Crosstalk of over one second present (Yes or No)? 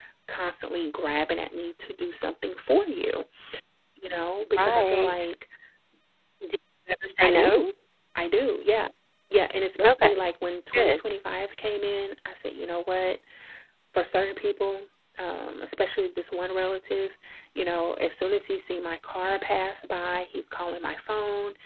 No